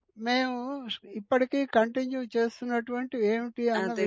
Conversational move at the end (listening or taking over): taking over